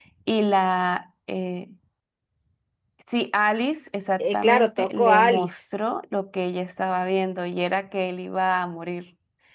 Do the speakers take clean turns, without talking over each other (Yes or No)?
No